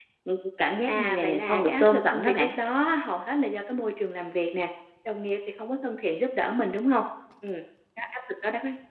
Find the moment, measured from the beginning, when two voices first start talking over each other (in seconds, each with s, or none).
0.9 s